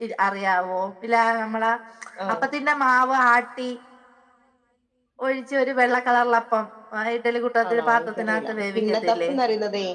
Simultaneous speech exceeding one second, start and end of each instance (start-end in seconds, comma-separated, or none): 7.7-9.3